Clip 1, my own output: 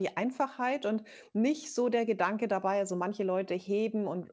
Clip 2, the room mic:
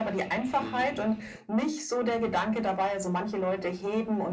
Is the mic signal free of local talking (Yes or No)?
No